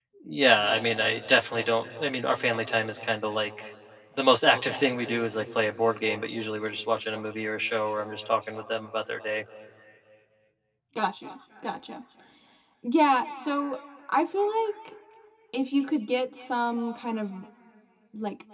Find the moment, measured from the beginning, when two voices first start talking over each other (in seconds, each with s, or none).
none